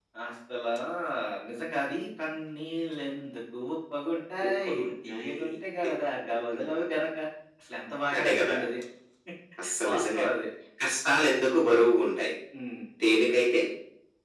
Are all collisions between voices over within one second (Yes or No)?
No